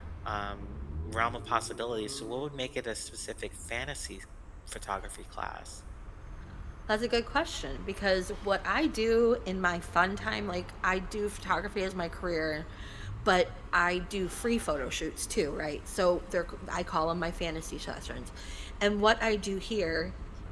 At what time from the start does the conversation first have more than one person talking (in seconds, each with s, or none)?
none